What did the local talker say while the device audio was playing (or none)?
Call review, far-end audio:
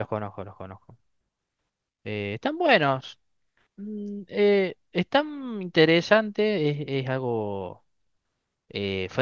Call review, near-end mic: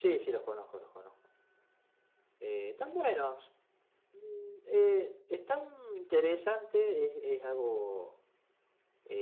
none